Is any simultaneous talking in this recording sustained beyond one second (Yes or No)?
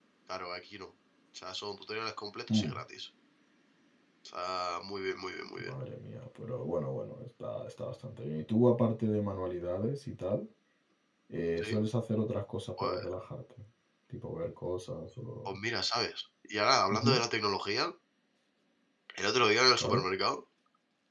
No